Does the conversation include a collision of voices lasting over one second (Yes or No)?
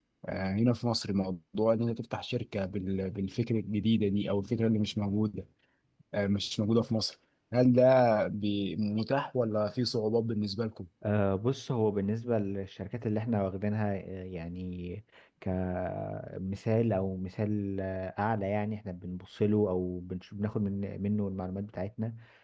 No